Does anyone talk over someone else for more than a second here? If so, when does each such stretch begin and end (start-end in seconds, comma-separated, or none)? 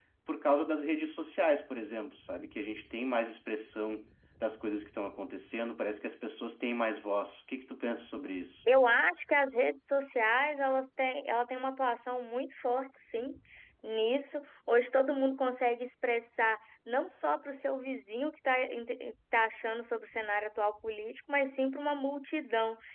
none